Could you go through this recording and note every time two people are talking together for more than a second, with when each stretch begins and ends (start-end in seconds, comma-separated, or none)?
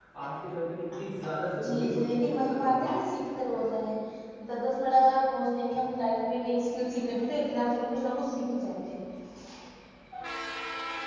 1.6-2.9